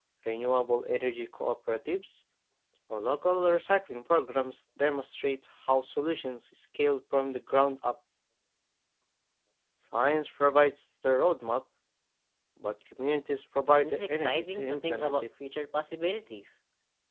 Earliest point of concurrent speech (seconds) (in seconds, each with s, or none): 13.8 s